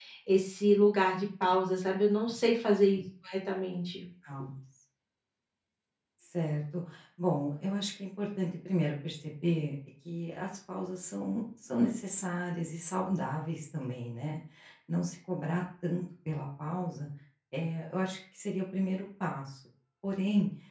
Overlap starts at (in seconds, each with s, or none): none